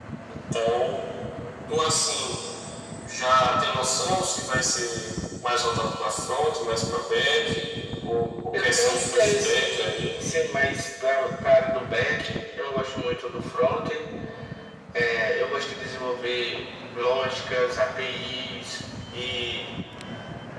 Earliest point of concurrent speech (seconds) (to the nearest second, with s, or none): 9 s